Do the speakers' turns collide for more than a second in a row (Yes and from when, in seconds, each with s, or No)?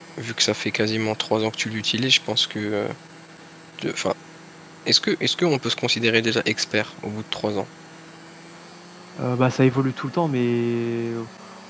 No